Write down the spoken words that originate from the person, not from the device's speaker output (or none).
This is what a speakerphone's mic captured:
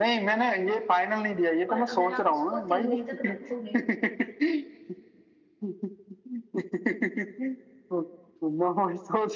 और अगर आप उसको तीन दिन तक रखोगे